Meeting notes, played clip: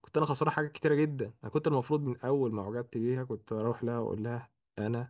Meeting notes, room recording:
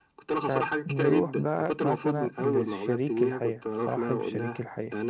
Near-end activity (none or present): present